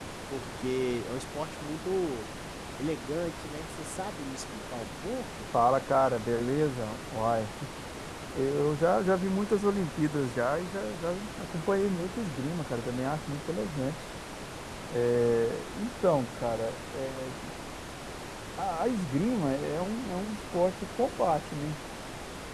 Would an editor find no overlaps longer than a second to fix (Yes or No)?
Yes